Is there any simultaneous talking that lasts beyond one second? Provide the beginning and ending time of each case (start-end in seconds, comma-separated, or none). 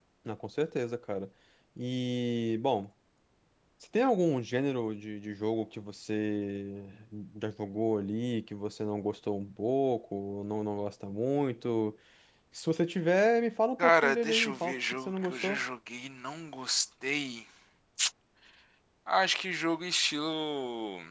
13.8-15.6